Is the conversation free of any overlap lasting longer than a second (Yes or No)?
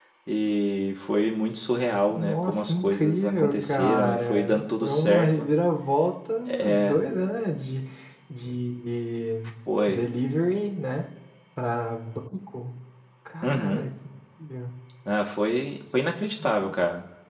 No